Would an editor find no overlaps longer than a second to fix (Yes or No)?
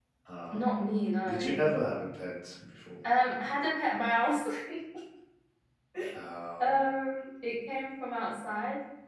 Yes